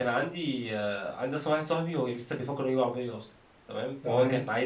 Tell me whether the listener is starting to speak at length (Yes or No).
No